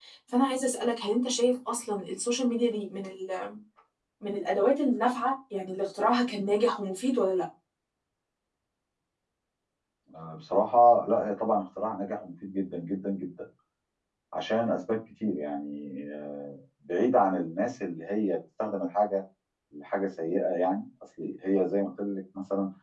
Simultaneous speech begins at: none

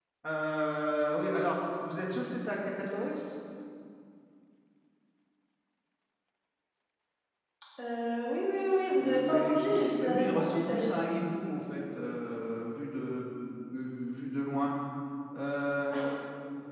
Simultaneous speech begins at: 9 s

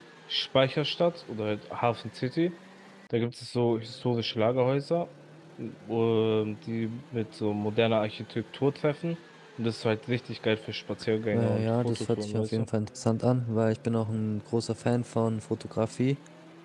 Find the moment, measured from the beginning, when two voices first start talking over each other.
11 s

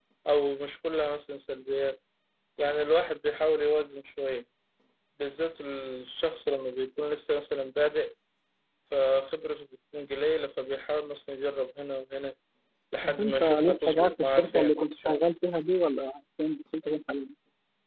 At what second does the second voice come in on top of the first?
13 s

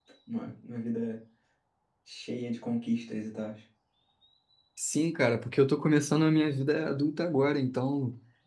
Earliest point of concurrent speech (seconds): none

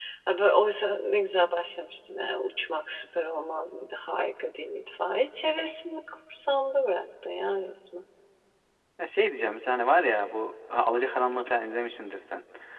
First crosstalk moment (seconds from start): none

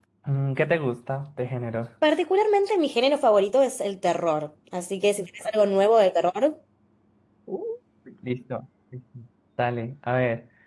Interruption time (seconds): none

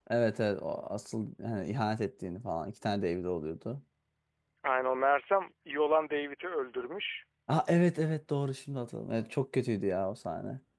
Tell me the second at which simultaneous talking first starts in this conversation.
none

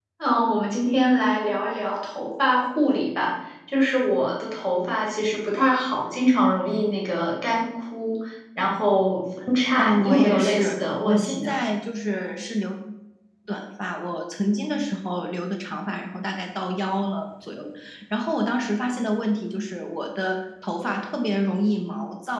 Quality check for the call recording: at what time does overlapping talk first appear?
10 s

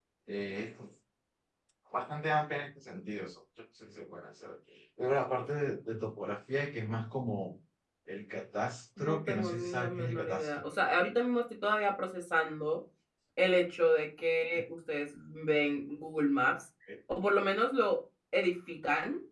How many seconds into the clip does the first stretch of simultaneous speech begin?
9 s

